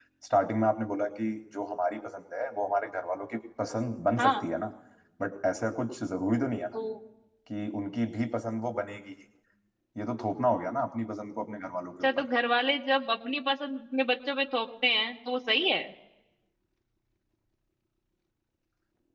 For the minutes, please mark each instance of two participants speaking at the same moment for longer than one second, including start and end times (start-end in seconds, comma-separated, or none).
none